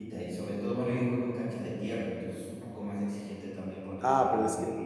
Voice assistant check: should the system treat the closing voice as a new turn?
Yes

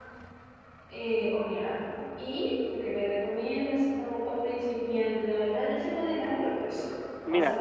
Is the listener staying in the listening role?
No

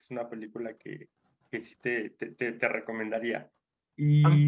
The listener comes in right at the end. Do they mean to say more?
Yes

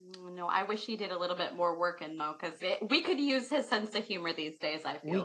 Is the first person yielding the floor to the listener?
Yes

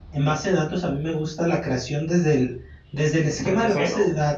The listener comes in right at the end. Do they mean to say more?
No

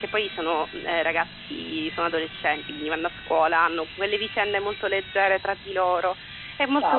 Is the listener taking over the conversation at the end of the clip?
Yes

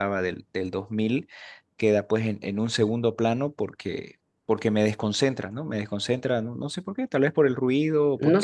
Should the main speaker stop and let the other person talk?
Yes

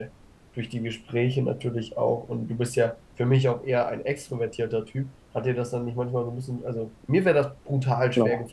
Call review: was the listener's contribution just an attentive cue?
Yes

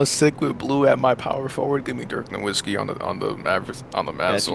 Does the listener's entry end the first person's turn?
Yes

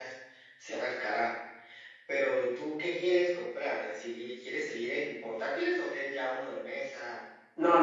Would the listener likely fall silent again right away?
No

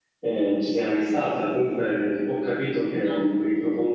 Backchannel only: Yes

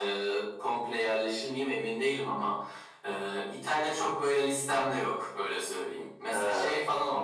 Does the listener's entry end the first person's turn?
No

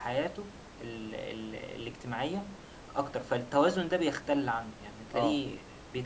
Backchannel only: Yes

